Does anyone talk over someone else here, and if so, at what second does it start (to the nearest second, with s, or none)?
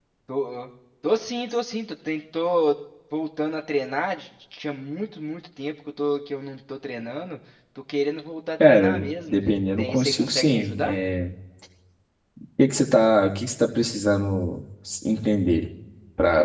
9 s